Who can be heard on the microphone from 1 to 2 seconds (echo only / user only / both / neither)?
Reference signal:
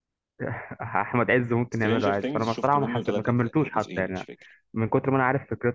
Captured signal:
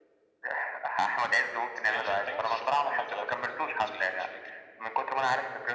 echo only